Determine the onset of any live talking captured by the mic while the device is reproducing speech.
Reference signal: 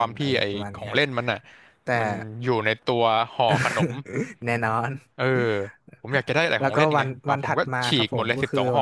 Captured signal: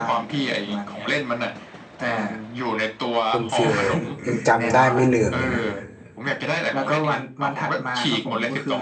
3 s

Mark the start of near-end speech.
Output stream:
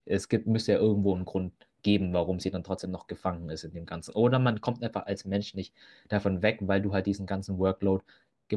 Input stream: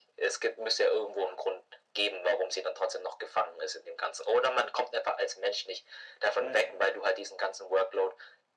6 s

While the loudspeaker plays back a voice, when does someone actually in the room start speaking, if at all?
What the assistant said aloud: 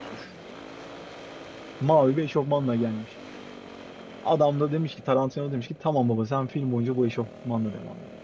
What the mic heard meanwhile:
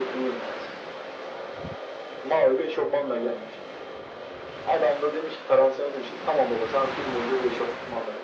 none

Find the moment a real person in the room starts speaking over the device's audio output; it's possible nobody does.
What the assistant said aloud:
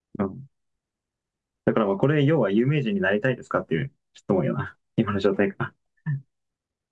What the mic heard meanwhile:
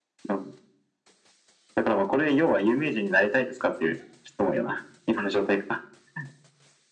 none

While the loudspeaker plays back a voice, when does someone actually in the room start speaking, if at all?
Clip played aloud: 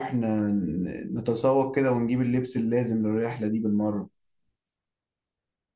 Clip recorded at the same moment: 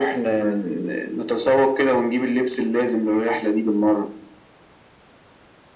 none

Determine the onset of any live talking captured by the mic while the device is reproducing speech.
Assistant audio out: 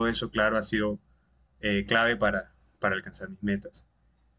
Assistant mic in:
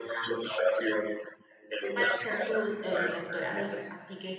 2 s

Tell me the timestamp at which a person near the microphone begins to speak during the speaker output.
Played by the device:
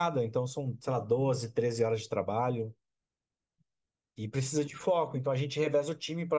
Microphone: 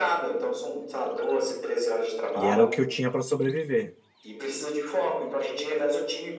2 s

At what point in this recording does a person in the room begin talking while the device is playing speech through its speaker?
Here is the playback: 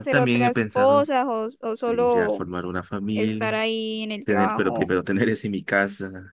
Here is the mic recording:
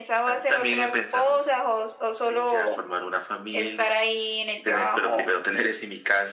none

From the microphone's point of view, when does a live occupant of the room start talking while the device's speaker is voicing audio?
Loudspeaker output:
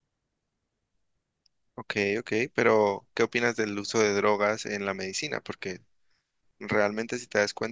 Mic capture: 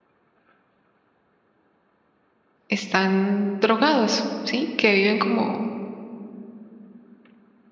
3 s

